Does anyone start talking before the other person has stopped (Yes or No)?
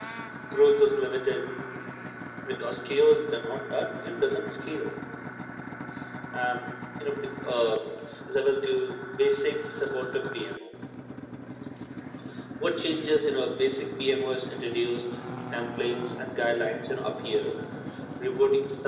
No